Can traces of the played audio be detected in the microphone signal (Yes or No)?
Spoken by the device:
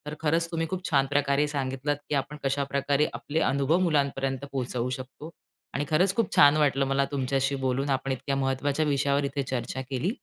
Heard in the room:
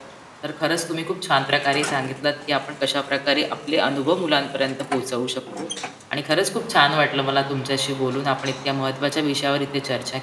Yes